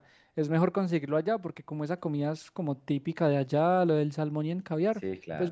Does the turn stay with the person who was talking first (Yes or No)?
Yes